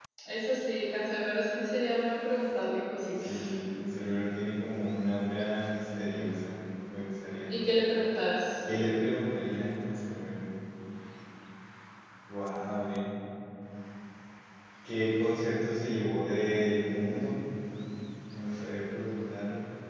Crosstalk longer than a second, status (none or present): none